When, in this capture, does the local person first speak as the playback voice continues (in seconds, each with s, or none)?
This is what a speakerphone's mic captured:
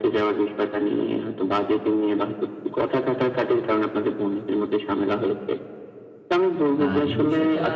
6.8 s